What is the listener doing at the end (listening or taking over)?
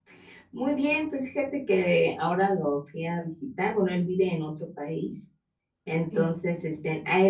listening